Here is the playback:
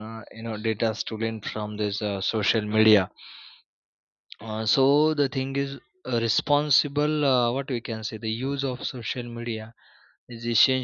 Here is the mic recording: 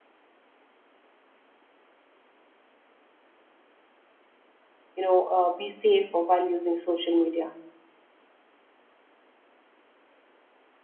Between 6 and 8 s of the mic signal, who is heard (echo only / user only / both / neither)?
user only